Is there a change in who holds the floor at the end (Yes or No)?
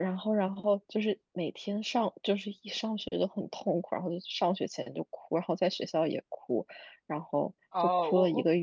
Yes